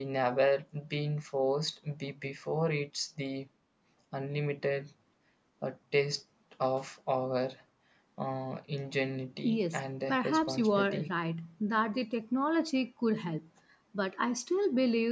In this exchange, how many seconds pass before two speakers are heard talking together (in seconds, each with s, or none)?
9.4 s